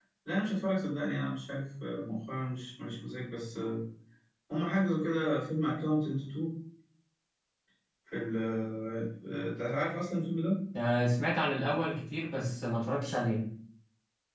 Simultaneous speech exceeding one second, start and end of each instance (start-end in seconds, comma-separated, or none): none